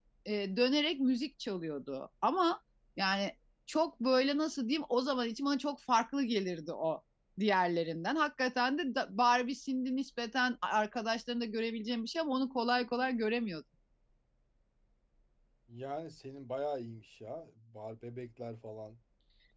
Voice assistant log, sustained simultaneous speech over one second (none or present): none